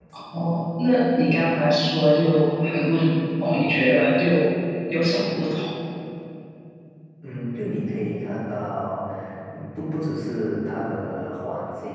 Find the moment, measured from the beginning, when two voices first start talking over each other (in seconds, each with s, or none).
none